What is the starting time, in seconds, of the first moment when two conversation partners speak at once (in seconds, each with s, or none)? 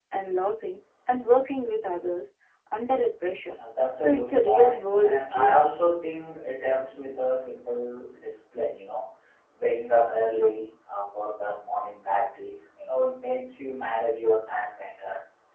4.0 s